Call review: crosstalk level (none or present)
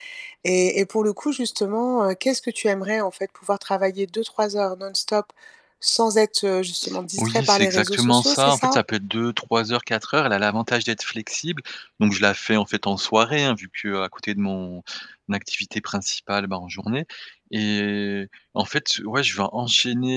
present